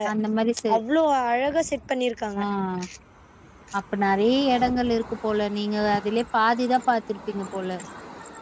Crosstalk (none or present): none